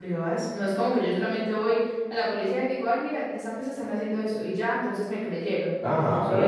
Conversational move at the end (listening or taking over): taking over